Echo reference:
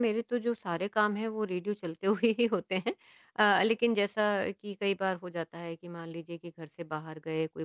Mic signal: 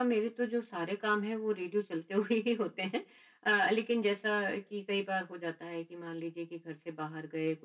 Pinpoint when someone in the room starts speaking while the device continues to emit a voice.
none

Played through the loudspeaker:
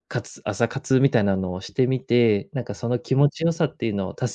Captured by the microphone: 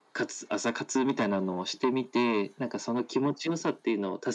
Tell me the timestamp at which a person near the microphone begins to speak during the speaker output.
none

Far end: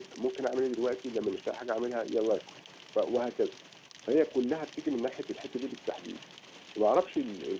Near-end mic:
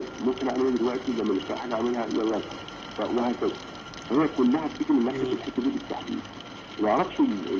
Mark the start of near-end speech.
5.1 s

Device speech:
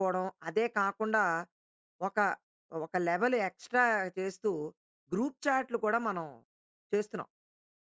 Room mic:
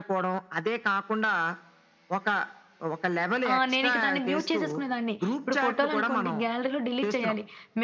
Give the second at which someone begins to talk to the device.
3.5 s

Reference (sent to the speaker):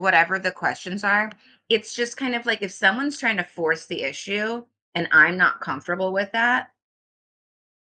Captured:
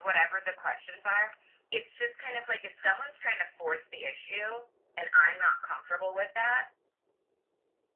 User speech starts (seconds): none

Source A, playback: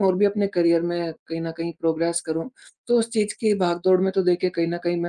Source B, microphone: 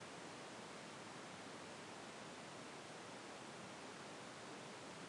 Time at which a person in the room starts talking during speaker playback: none

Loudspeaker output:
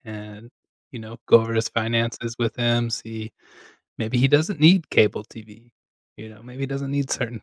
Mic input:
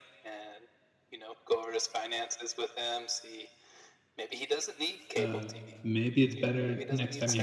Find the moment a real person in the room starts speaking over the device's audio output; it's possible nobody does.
5.2 s

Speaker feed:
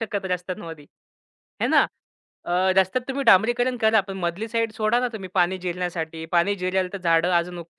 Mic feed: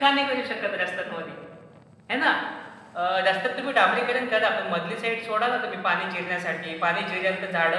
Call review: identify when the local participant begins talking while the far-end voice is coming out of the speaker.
none

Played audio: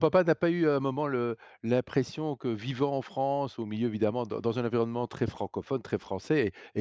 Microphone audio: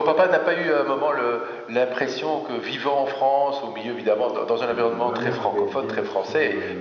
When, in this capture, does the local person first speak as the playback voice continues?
4.7 s

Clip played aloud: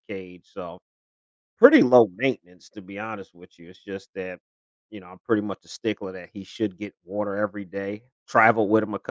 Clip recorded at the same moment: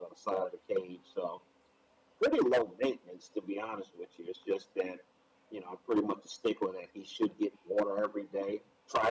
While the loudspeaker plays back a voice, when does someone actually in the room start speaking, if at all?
none

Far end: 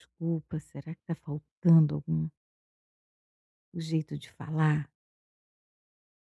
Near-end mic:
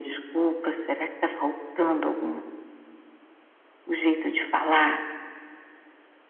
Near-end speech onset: none

